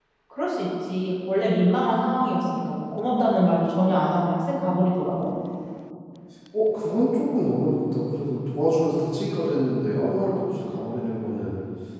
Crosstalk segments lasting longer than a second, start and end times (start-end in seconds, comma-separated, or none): none